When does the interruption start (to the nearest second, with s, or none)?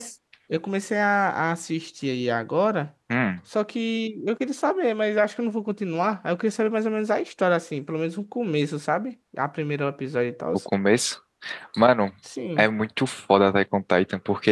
none